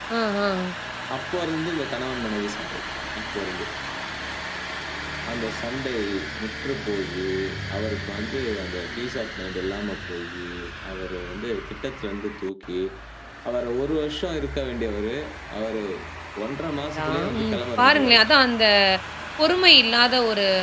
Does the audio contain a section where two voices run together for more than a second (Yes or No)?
Yes